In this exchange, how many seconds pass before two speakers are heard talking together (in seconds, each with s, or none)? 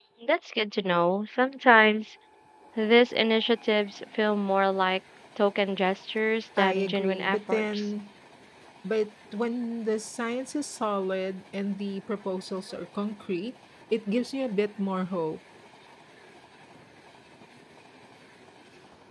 6.6 s